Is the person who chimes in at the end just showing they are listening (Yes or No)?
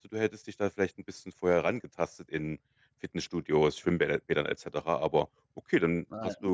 Yes